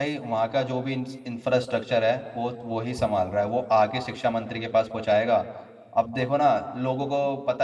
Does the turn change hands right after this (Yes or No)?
Yes